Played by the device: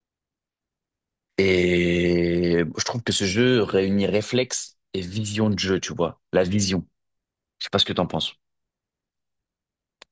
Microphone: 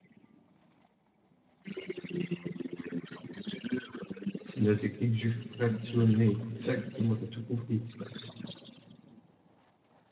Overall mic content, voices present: both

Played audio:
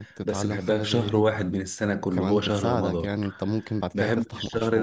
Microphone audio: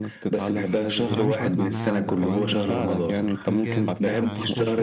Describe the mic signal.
both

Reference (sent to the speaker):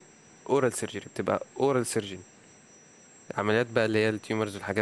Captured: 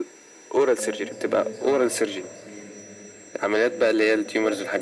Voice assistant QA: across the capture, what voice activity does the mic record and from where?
both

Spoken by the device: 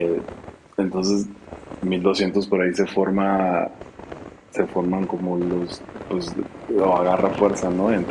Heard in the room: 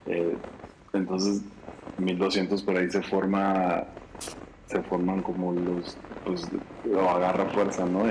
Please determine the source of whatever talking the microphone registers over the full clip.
echo only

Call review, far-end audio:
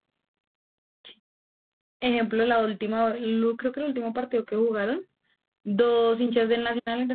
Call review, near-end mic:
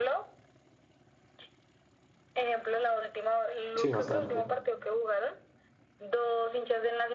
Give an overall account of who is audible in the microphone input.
both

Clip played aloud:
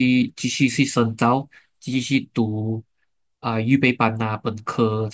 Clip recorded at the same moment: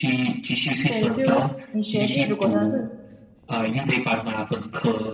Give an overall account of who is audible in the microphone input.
both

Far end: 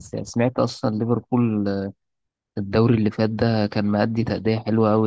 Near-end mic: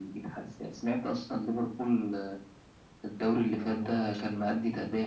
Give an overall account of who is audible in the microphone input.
both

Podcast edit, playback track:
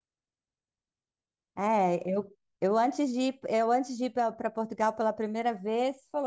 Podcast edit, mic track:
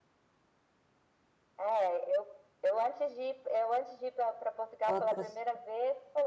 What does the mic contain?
both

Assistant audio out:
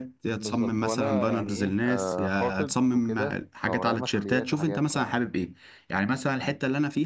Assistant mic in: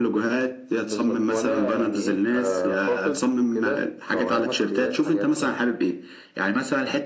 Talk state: echo only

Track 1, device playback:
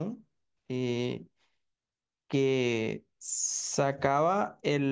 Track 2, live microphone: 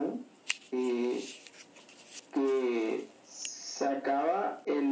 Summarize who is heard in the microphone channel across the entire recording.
echo only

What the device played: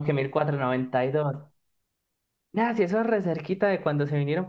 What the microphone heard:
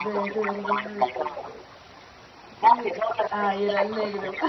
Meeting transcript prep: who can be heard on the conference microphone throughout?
both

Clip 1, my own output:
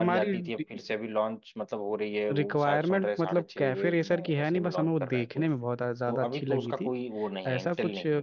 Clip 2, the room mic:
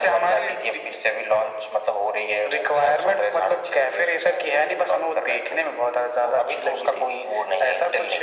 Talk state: echo only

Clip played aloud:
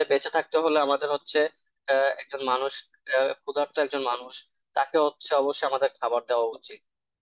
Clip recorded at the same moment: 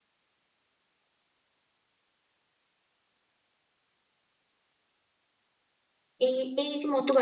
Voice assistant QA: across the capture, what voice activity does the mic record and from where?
user only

